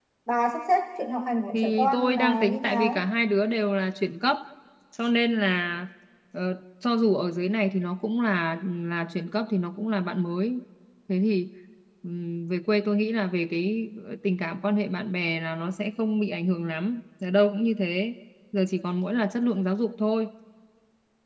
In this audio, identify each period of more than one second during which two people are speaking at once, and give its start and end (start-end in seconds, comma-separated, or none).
1.5-3.0